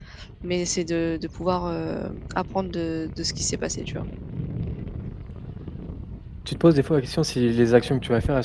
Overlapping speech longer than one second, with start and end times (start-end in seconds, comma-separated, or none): none